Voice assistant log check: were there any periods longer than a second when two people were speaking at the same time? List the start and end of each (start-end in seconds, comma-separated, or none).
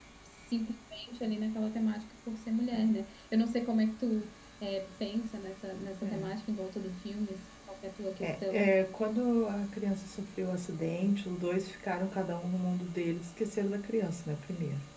none